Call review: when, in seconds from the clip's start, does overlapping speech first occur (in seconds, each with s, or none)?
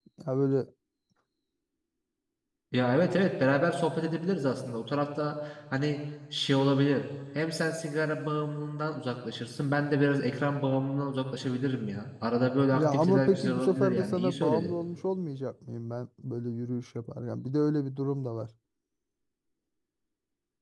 12.7 s